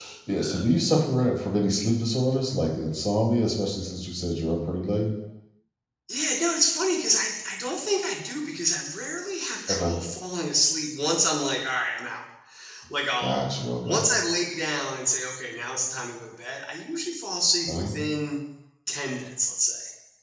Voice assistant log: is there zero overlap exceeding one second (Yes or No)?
Yes